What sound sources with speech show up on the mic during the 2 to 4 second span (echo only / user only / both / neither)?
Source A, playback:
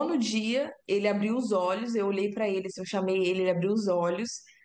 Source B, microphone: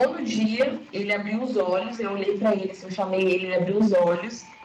echo only